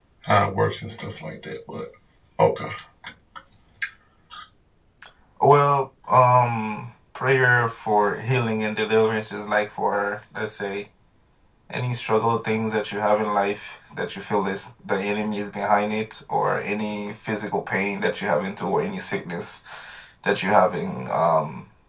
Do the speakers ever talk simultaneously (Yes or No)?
No